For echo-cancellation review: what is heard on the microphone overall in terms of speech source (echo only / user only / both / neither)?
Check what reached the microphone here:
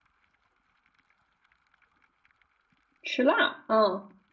user only